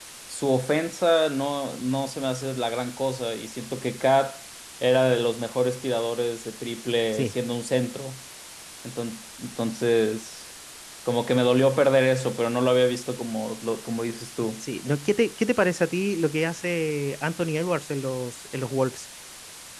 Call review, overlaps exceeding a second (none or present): none